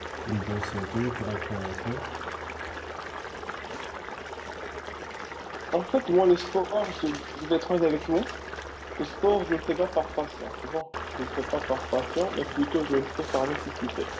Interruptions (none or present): none